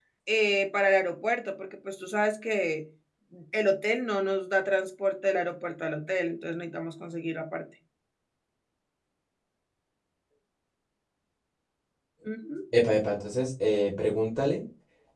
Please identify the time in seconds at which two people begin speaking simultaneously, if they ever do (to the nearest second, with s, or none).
none